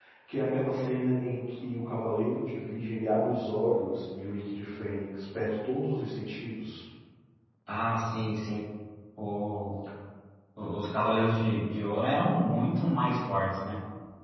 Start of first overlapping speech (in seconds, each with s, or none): none